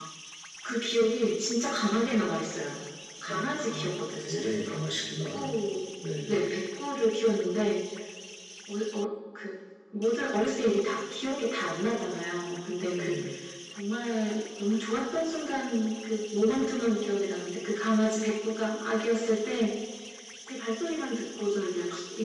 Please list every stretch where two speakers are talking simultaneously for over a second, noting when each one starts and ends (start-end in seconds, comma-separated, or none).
3.3-4.5